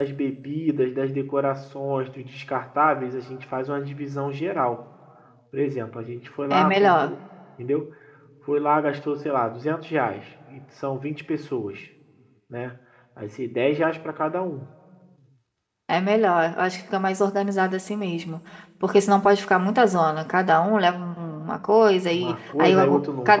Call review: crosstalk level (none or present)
present